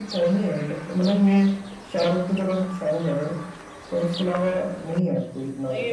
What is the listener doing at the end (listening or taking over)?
taking over